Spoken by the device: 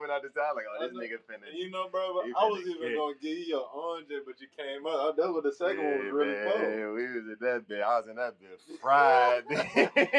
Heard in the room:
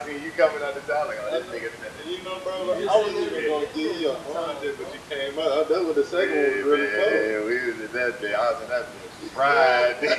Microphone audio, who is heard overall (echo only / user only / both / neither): both